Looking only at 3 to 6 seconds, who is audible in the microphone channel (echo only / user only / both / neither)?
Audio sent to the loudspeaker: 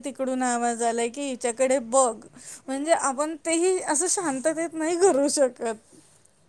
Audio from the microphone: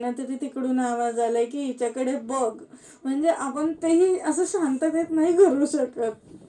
echo only